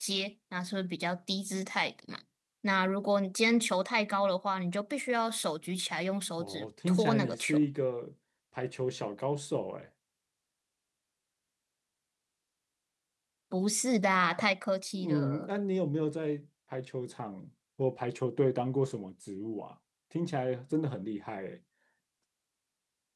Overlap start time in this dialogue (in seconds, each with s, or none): 6.4 s